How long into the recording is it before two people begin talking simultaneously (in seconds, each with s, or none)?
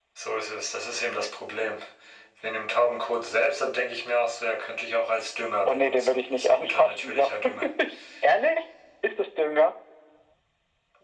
5.7 s